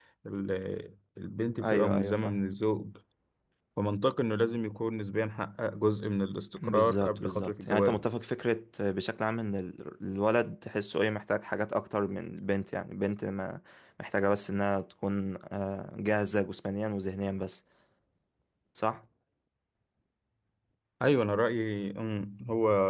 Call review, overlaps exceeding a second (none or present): present